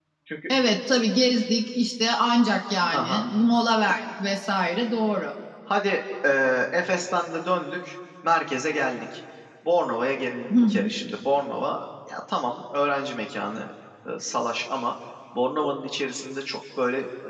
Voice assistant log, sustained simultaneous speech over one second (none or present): none